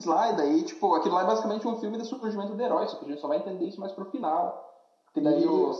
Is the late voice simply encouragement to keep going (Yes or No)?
Yes